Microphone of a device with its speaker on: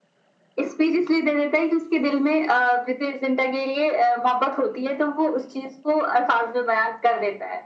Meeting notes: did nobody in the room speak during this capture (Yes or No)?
Yes